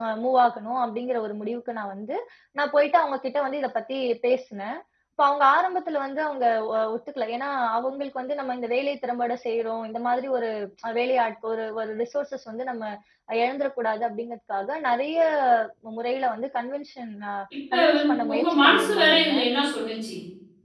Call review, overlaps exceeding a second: present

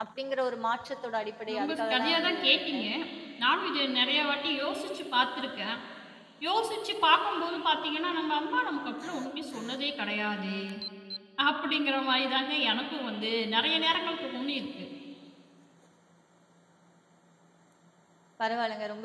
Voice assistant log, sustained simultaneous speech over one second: present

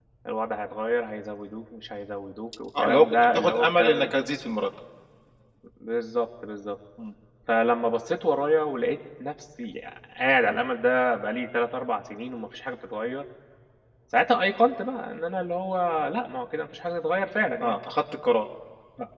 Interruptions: present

